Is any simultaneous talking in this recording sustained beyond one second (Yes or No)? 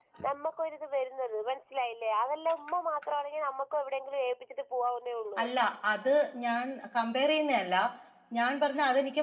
No